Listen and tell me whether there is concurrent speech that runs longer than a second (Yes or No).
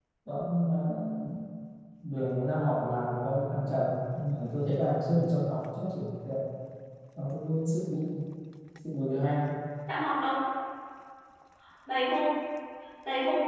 No